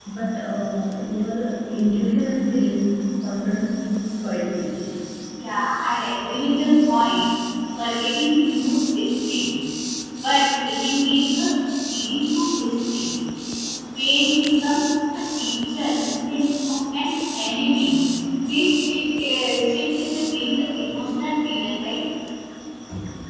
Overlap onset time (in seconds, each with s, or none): none